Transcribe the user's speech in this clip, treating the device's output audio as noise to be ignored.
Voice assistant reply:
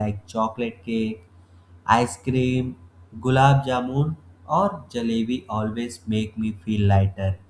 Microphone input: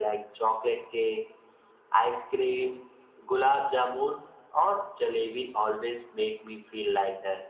none

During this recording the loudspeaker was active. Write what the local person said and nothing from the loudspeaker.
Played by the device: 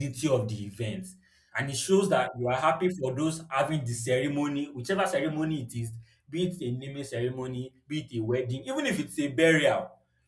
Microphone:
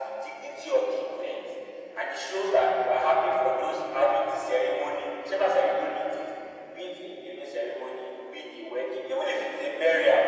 none

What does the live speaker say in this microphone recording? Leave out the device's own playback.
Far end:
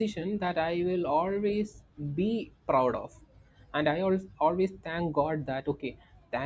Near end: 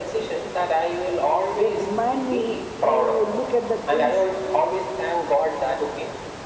They remind me to look at the things

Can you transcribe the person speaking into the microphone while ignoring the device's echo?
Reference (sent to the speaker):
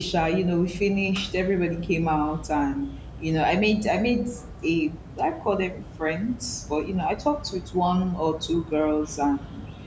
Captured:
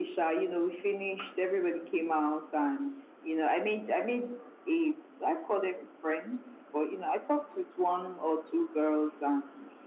none

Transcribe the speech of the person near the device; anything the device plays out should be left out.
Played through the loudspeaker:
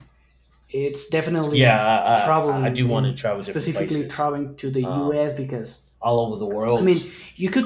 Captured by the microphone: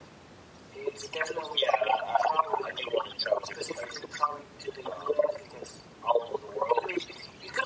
none

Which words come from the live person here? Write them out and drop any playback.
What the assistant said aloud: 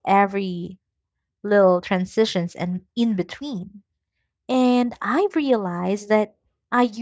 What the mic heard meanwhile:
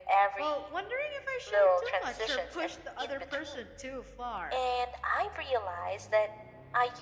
Well, wondering if I shared too much or pushed the other person too far.

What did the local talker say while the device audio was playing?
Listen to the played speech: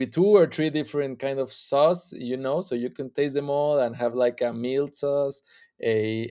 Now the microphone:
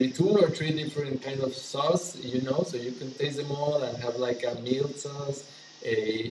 none

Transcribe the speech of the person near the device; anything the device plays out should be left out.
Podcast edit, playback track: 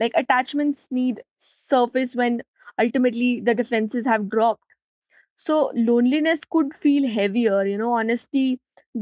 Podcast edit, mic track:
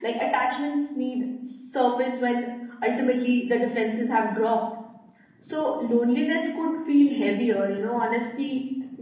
none

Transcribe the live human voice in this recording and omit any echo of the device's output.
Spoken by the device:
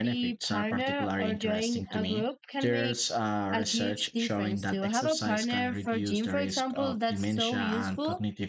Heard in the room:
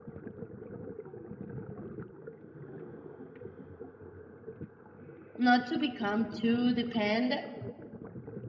not to become too dependent

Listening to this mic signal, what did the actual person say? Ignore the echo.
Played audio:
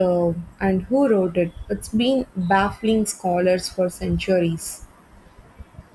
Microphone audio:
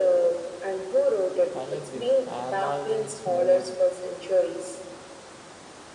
I agree. I am always more

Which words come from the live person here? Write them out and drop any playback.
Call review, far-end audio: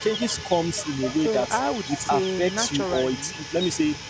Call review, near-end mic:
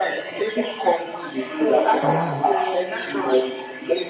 one,

